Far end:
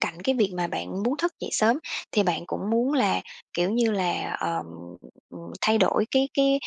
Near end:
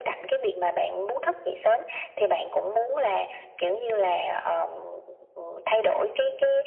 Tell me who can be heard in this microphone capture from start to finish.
echo only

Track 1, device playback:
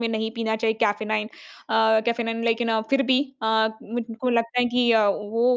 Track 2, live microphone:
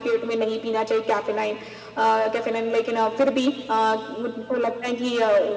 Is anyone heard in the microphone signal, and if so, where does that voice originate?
echo only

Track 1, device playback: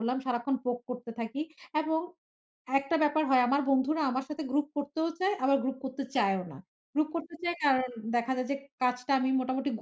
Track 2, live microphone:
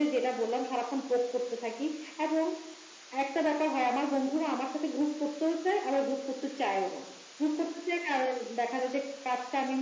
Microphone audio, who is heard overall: echo only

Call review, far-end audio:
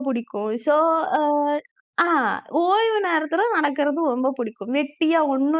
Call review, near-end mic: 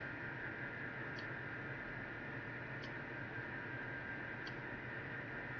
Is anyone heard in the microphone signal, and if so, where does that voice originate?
neither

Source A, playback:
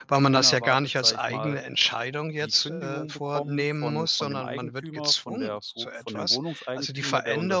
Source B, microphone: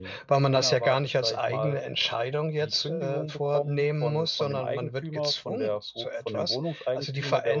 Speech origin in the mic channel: echo only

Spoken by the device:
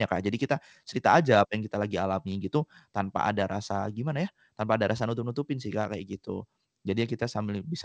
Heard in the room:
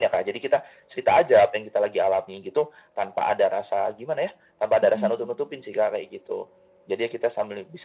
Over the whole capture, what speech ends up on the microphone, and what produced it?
both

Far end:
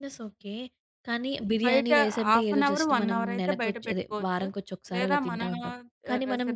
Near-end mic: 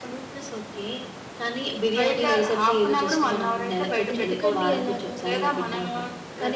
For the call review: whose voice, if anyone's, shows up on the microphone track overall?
both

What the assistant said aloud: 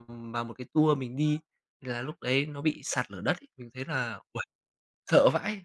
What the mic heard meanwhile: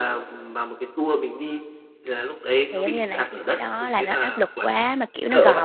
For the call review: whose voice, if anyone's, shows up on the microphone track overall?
both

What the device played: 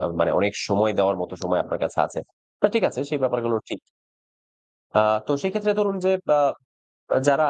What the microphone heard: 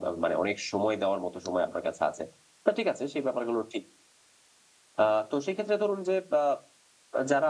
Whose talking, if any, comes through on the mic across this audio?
echo only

